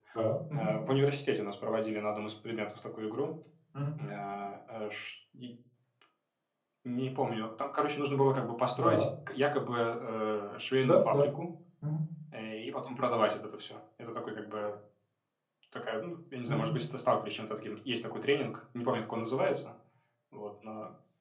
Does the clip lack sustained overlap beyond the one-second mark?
Yes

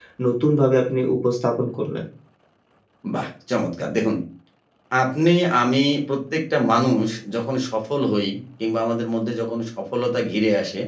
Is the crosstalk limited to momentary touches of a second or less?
Yes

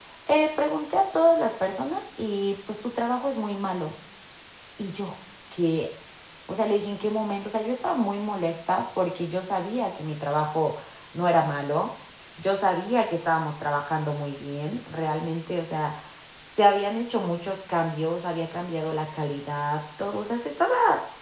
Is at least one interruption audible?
No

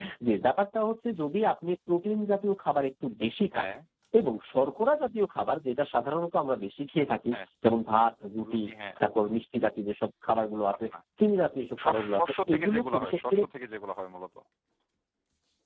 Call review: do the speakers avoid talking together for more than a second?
No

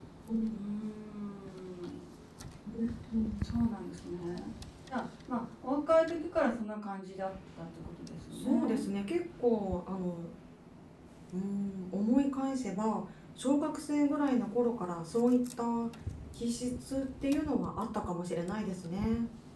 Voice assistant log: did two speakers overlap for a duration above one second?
No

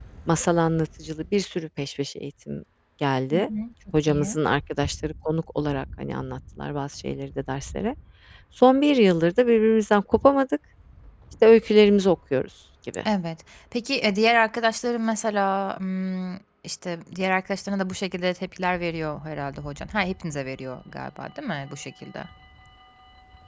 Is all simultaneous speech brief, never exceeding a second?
Yes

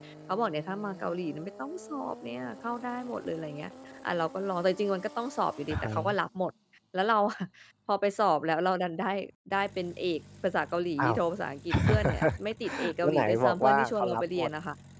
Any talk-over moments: Yes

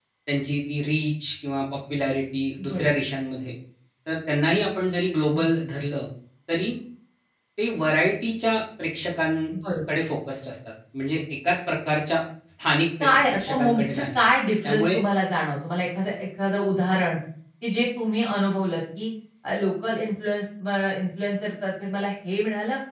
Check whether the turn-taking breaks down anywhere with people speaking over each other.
Yes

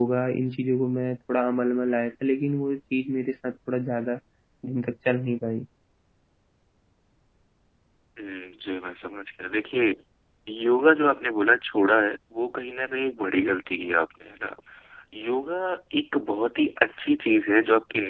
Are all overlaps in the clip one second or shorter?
Yes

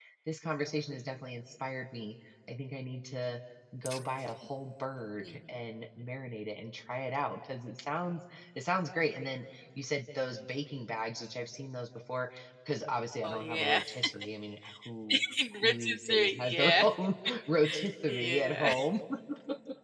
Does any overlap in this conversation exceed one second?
Yes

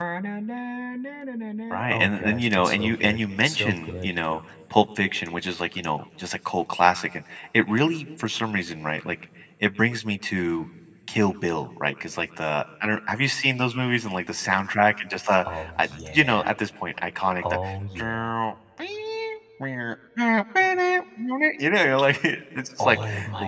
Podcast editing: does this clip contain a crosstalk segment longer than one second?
Yes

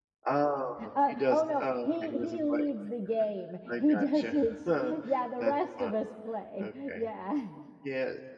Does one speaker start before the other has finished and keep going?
Yes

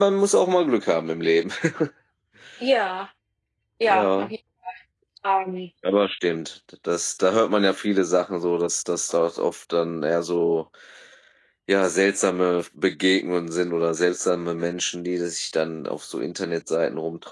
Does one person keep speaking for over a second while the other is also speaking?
No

